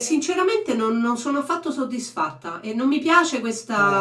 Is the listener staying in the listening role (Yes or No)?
Yes